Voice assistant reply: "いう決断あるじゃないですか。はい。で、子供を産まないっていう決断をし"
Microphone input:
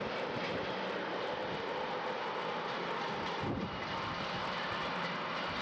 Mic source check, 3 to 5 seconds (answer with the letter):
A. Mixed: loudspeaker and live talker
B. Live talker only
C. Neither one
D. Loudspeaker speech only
C